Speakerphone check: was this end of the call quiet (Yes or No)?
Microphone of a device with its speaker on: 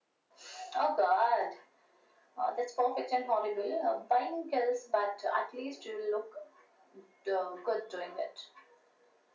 Yes